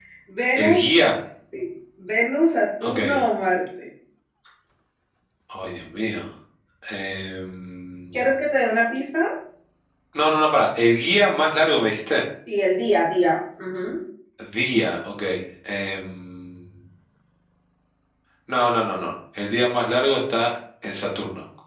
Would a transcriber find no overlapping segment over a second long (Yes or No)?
Yes